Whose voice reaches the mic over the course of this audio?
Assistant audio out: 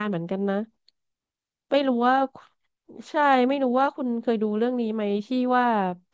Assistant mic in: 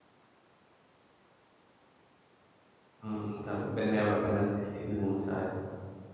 user only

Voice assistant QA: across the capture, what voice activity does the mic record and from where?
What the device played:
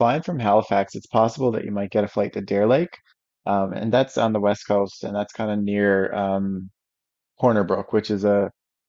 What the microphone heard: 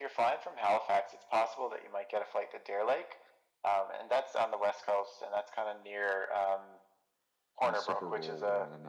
both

